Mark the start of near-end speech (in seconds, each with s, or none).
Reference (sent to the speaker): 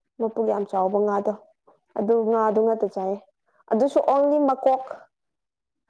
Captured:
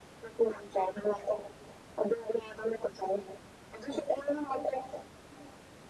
none